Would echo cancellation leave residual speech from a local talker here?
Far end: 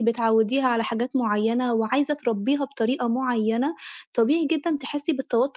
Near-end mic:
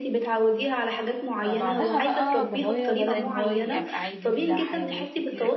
Yes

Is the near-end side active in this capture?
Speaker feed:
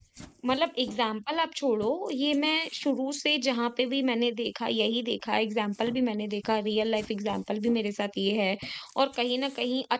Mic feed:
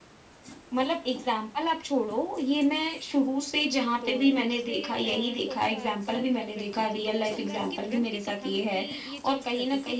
Yes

